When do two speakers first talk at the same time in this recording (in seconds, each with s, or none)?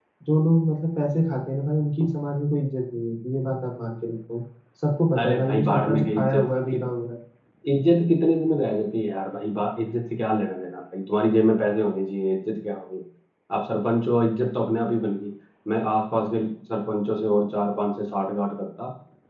5.2 s